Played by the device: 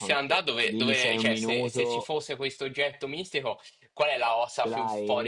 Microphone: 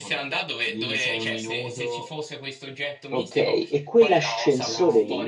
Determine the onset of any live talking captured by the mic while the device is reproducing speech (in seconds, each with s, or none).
3.1 s